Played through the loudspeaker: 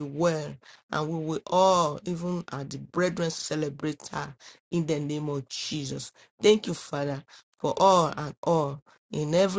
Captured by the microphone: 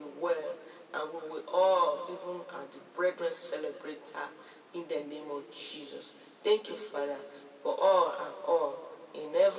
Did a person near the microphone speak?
No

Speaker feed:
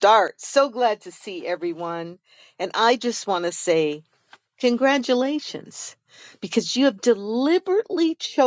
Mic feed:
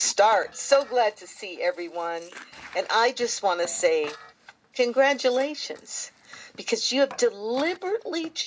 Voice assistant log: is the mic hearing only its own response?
Yes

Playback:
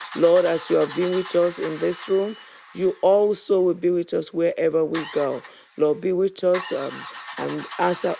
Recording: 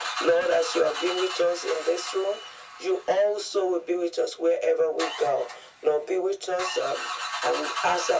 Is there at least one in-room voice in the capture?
No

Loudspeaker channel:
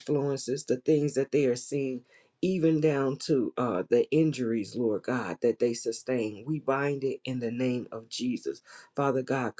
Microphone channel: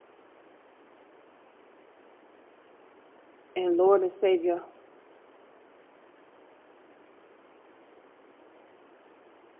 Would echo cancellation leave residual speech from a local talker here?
Yes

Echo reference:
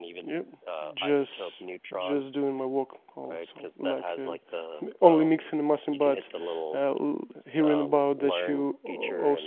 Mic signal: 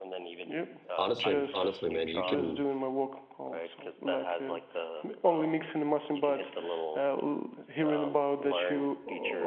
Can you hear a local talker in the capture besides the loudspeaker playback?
Yes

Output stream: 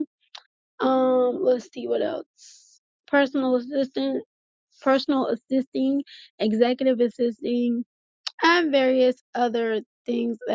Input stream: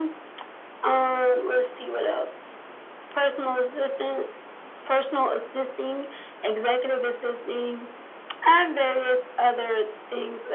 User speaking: No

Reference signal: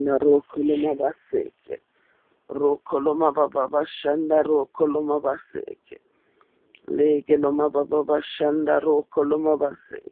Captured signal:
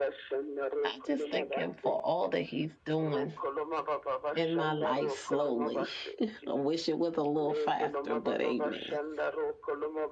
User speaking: Yes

